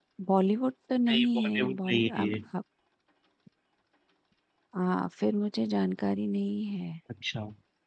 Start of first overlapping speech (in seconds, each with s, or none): 1.1 s